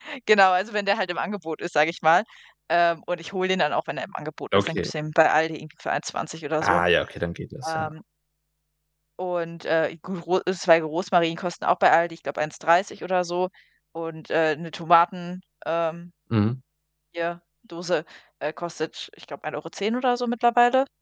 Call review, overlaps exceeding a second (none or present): none